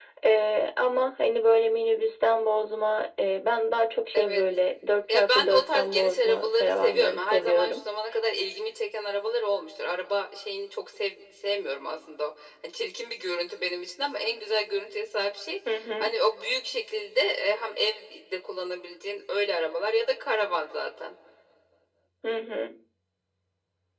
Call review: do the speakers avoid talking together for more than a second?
No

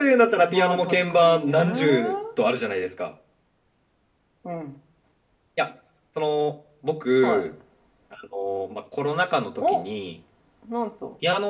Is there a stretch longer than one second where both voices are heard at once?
Yes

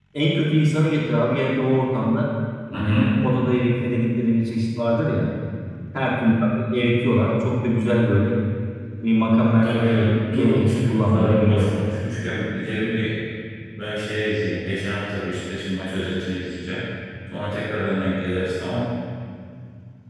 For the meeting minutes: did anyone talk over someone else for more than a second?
Yes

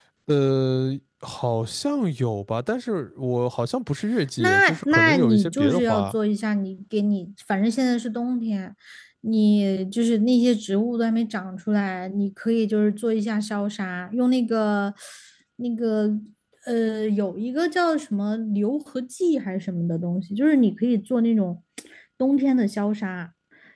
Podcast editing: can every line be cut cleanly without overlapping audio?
No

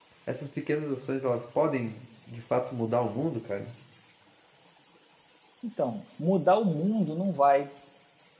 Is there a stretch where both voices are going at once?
No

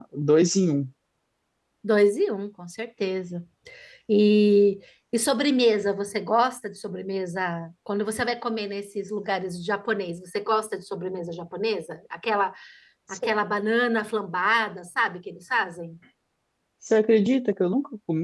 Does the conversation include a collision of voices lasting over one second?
No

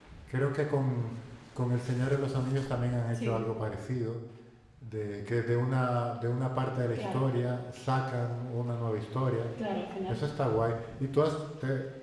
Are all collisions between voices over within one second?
Yes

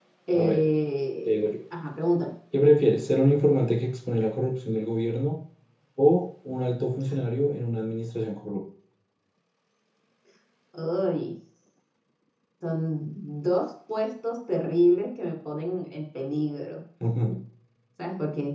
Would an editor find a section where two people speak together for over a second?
No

